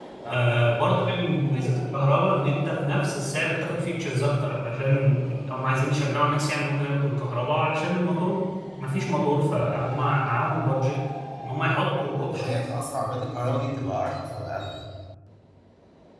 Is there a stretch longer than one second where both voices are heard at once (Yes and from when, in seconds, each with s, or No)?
No